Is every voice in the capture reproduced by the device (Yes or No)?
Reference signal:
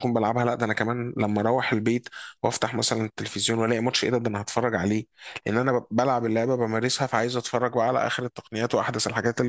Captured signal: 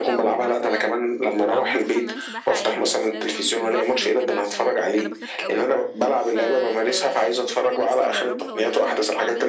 No